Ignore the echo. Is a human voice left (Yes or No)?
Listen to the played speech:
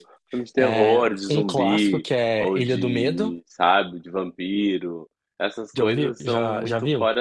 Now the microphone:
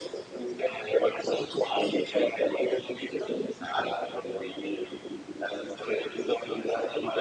No